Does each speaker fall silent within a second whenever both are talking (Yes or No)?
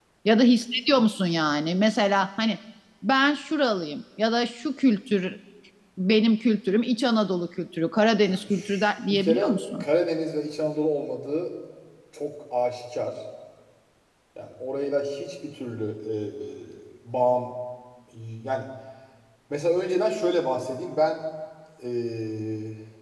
No